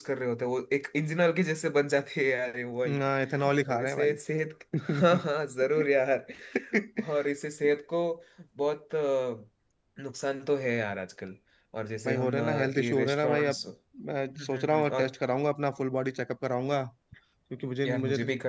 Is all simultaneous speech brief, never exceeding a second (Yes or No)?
No